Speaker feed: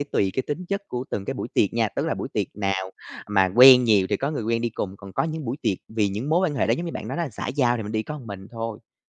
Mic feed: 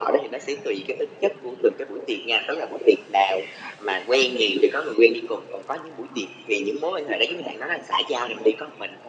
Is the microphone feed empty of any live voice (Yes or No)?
Yes